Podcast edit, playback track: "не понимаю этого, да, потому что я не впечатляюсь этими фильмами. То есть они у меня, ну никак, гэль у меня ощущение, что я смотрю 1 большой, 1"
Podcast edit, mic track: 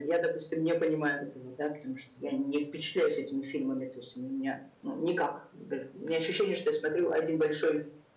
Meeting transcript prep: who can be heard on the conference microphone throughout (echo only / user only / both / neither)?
echo only